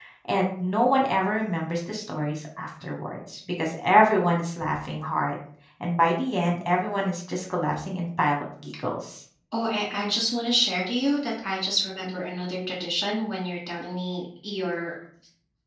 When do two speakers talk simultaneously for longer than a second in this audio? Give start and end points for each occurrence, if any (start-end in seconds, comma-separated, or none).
none